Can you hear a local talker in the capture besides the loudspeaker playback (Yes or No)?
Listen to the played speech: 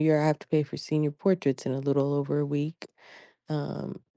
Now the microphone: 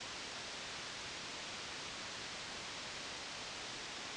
No